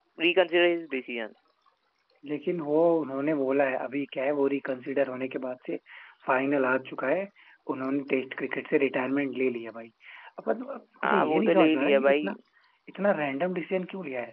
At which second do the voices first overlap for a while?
11 s

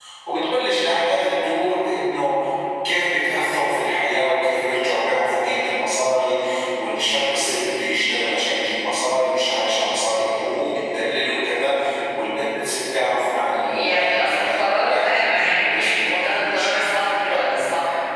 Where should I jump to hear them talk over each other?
14 s

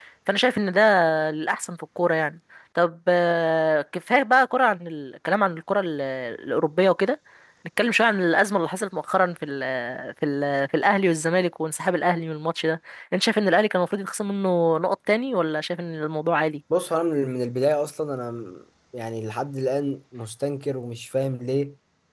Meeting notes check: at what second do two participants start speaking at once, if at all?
none

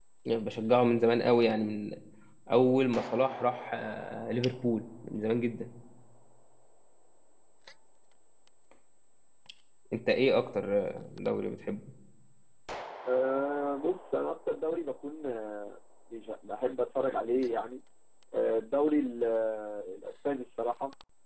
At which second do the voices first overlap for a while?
none

